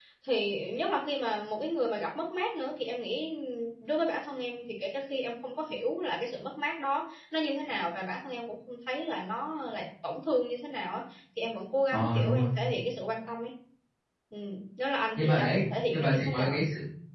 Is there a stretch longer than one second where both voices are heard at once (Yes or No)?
Yes